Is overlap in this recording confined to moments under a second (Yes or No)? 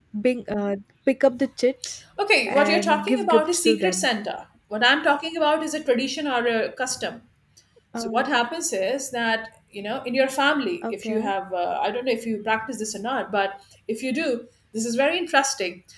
No